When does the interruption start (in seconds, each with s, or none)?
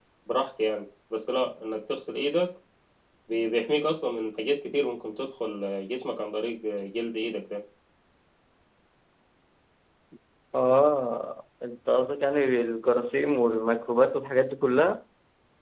none